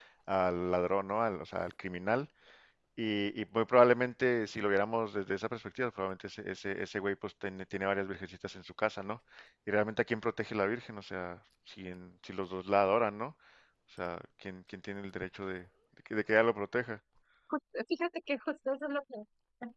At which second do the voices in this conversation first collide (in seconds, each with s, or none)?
none